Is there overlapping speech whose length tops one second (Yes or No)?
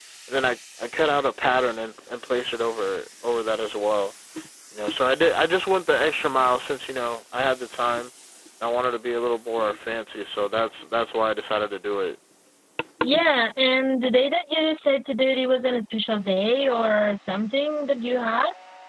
No